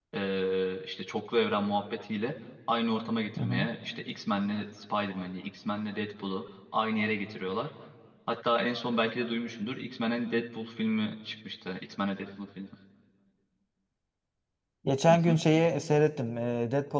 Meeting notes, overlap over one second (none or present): none